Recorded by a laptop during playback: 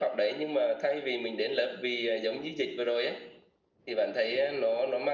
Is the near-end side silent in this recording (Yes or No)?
Yes